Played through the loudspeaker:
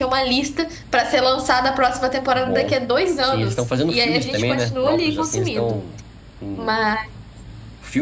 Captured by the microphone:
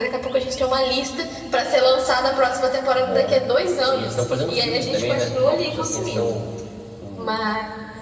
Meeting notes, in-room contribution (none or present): none